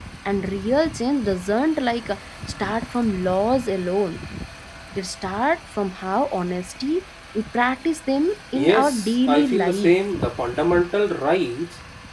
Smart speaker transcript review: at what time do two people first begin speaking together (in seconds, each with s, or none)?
8.6 s